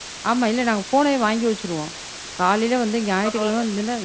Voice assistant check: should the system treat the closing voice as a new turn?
No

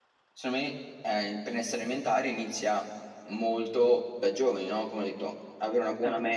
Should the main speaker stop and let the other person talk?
No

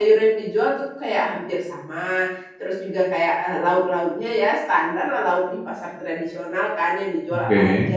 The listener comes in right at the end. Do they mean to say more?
No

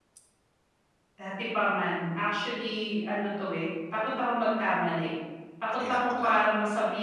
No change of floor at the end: Yes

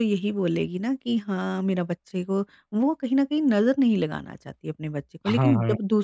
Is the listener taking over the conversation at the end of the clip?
No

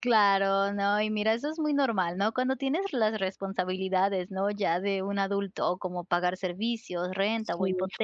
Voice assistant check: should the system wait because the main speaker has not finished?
Yes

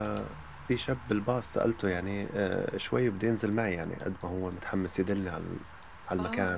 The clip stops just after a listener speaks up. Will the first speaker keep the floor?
No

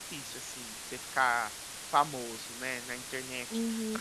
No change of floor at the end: No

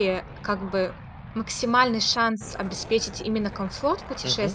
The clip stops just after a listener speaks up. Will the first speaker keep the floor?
Yes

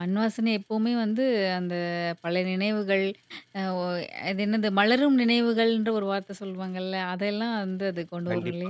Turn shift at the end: Yes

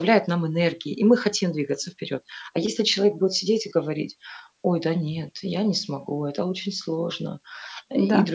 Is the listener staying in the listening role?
Yes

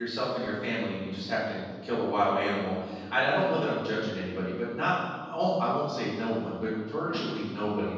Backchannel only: Yes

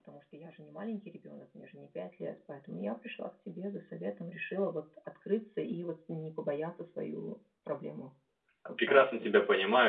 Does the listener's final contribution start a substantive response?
Yes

